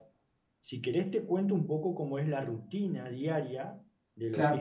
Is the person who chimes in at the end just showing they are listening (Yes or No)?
No